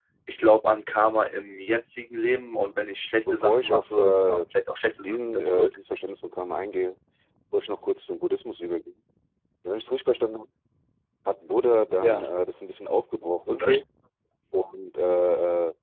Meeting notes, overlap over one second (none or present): present